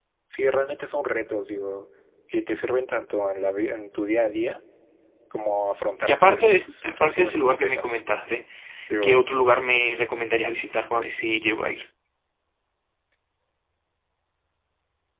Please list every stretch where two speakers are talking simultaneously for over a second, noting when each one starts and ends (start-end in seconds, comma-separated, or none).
6.0-8.0